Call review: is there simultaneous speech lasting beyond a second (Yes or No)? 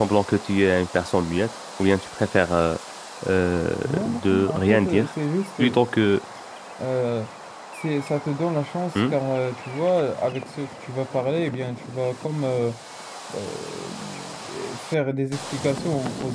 Yes